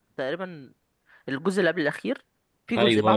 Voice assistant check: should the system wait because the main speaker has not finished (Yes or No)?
No